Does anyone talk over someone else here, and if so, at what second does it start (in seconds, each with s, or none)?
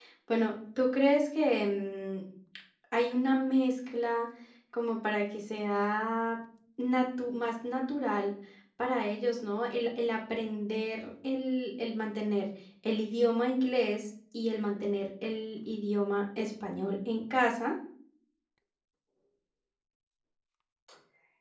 none